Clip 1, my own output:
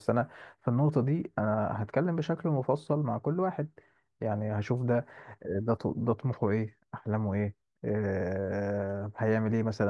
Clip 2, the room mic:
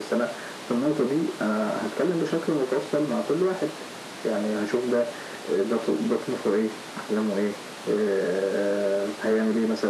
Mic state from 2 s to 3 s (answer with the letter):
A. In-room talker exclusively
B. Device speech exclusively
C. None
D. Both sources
B